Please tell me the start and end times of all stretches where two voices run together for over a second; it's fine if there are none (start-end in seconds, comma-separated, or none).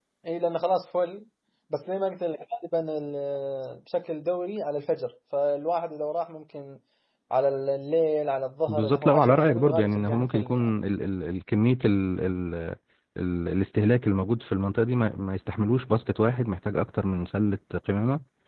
8.7-10.8